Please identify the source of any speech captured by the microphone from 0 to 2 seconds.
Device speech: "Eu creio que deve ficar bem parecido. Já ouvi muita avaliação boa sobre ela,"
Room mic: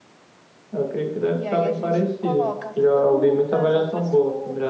both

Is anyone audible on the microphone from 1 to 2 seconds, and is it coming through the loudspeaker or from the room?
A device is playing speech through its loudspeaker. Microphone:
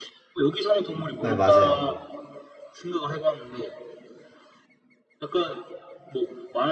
both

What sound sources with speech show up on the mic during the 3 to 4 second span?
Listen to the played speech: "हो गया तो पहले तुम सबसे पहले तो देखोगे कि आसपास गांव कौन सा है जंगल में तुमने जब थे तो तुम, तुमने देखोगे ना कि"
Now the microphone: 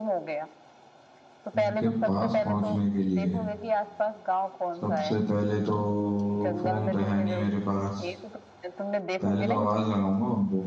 both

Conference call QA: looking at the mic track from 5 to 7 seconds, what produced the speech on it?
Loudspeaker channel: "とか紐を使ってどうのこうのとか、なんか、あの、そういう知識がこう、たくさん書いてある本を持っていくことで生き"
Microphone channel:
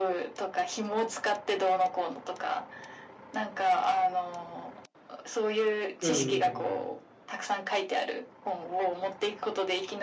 both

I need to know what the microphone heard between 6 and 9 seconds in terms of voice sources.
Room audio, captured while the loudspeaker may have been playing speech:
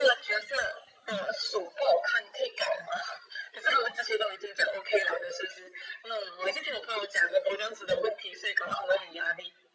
echo only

